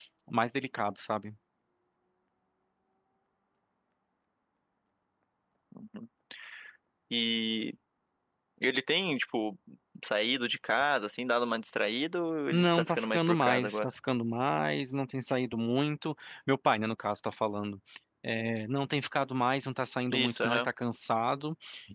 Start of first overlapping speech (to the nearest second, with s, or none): 13 s